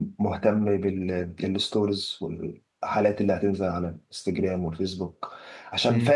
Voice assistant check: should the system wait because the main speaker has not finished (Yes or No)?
Yes